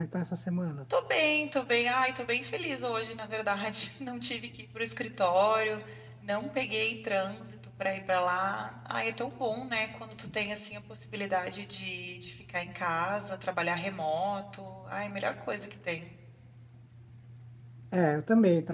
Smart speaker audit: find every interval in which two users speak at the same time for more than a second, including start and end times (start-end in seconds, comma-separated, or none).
none